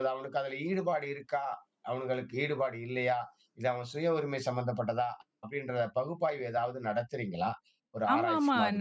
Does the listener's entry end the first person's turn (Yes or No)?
Yes